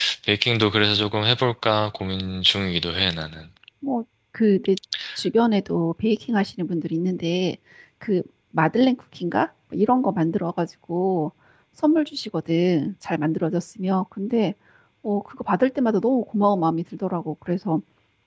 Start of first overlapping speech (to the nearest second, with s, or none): none